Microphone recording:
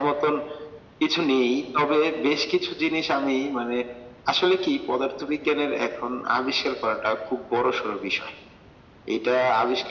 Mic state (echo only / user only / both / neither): echo only